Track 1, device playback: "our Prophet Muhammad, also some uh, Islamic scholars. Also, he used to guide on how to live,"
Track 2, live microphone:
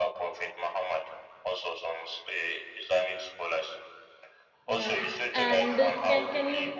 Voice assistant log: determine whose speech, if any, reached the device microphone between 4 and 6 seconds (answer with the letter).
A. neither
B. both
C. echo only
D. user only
B